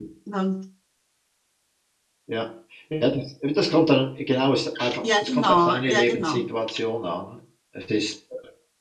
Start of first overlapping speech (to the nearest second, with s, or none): 5 s